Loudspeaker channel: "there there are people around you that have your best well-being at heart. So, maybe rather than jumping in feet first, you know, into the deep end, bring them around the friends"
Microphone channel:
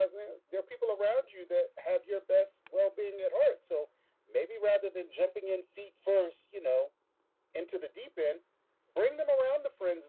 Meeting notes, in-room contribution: none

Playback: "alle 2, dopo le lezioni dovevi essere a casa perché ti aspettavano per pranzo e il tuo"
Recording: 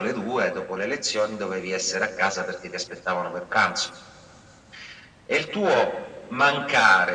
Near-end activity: none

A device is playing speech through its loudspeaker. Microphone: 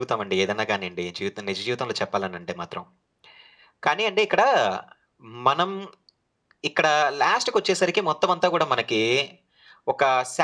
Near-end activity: none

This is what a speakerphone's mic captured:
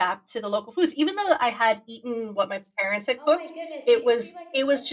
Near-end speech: present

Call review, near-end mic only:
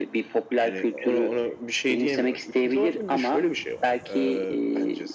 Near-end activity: none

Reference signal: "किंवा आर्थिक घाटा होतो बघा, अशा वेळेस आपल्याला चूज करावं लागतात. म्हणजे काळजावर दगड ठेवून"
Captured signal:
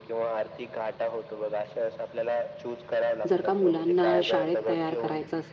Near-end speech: present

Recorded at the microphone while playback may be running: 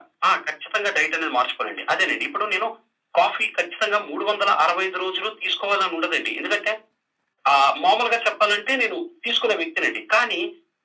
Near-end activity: none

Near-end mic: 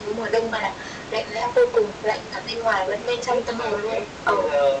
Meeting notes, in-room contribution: none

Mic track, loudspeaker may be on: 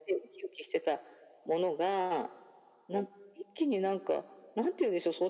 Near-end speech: none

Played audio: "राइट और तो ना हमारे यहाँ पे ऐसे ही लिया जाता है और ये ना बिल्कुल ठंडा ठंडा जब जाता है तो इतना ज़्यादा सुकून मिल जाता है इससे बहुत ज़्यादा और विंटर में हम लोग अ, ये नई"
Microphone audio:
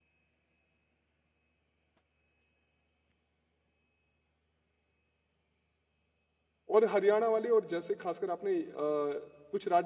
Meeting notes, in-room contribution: present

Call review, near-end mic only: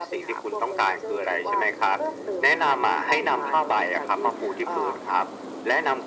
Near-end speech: none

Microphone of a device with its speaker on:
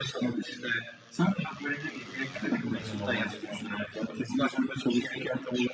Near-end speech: present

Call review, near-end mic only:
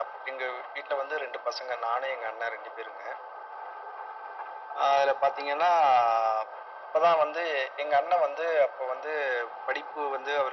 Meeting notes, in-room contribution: none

